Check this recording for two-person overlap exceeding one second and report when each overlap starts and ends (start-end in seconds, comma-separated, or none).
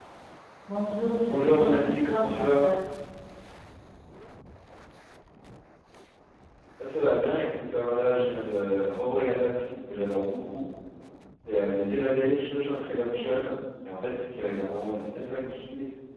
1.3-2.7